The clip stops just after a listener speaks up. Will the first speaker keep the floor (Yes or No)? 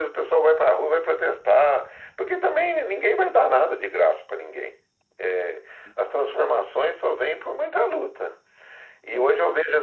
Yes